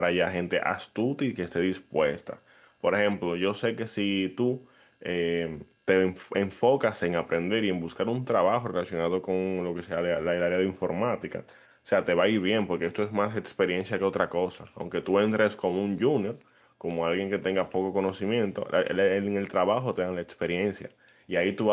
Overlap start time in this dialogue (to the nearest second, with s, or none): none